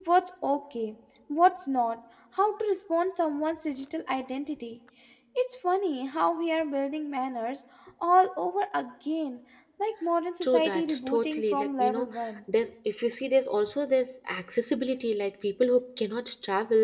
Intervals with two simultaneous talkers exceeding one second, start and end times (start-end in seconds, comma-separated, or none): 10.4-12.1